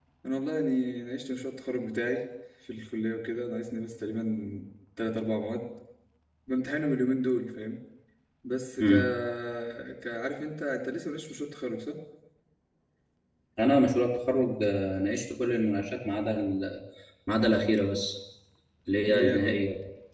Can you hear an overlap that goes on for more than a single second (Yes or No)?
No